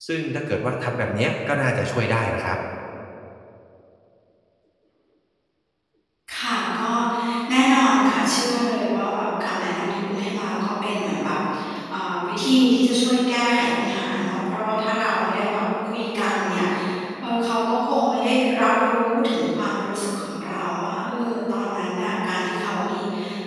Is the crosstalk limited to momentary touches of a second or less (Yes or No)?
Yes